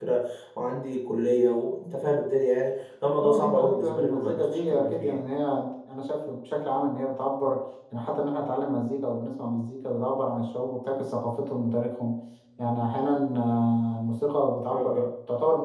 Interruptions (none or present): present